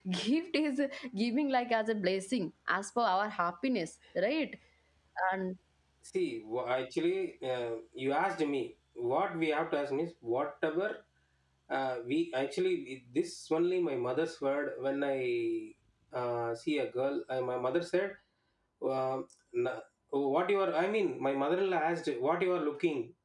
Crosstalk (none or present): none